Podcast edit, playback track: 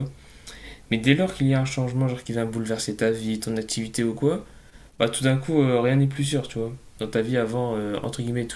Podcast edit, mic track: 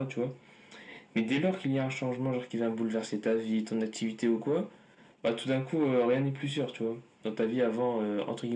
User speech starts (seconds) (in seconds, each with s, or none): none